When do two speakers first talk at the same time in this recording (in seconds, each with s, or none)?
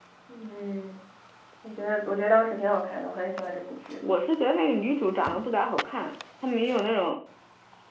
none